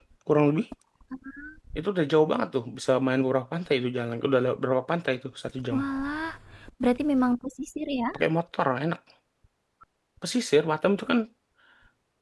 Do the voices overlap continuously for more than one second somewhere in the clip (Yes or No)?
No